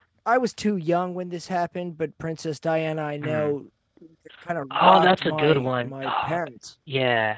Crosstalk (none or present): present